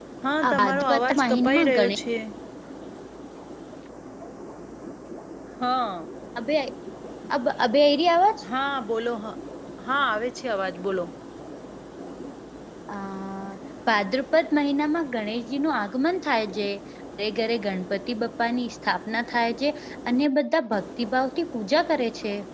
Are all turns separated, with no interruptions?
No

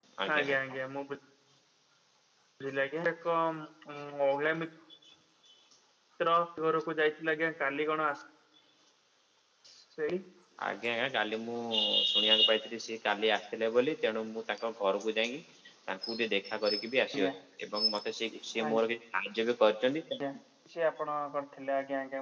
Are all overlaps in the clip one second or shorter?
Yes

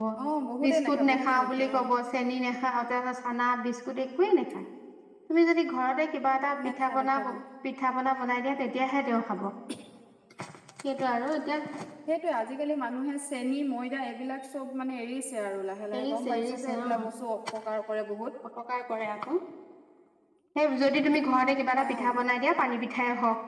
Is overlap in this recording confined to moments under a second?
No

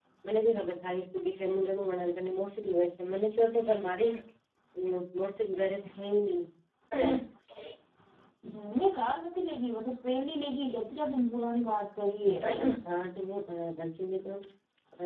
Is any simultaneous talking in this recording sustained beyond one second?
No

